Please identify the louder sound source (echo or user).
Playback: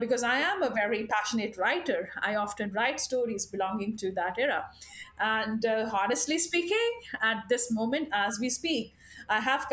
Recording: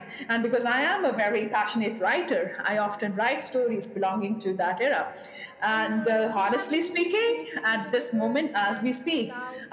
echo